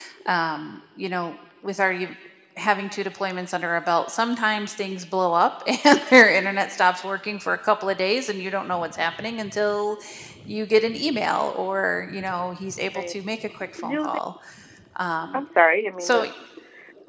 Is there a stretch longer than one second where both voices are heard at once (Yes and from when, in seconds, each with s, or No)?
No